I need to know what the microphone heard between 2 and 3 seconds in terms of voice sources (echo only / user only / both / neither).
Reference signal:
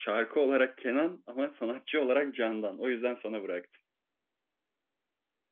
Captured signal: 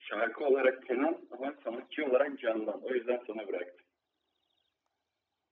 echo only